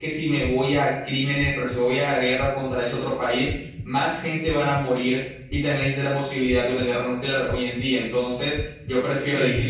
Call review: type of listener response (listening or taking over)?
listening